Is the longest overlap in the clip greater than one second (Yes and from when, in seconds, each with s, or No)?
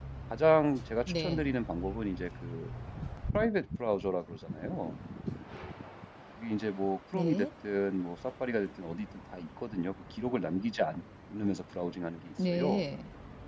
No